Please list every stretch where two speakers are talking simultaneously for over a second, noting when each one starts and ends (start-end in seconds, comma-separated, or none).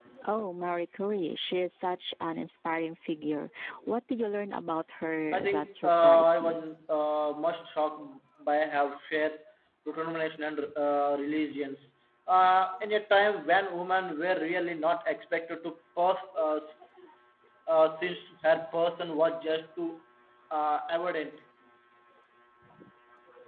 5.3-6.5